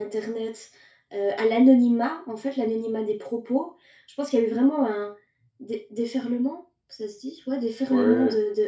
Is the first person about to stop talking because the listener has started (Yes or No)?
No